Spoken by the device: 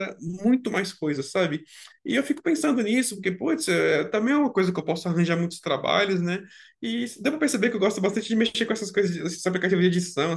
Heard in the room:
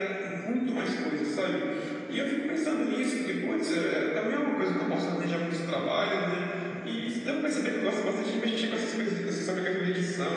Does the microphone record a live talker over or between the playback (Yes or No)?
No